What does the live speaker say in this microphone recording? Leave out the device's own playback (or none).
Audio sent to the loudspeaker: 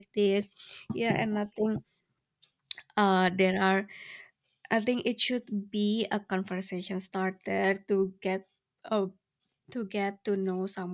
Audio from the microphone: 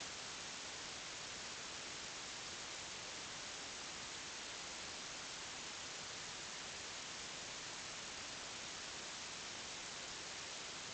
none